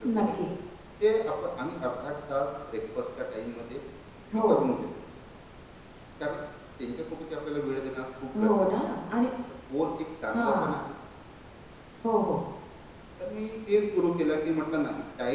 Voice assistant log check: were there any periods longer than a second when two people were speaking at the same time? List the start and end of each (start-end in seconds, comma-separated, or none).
none